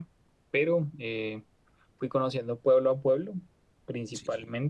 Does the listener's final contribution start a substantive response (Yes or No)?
No